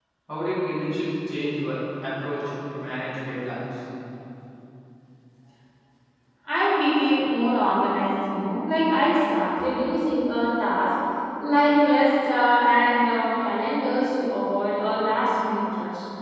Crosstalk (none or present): none